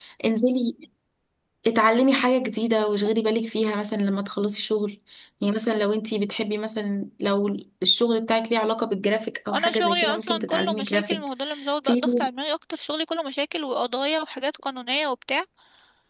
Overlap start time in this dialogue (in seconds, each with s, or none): 9.5 s